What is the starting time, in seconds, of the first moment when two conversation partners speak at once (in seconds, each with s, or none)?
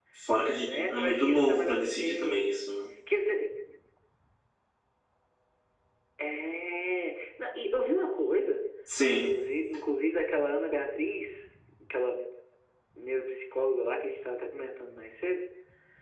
0.6 s